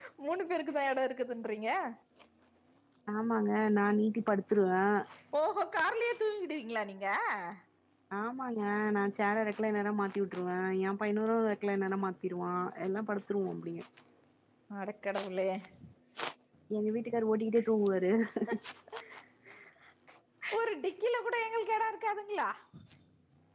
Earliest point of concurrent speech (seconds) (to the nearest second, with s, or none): none